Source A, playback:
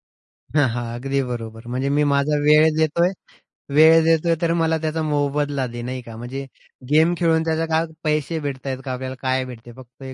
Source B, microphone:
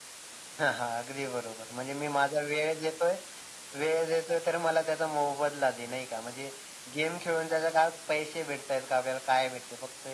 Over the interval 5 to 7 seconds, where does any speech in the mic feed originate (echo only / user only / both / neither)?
echo only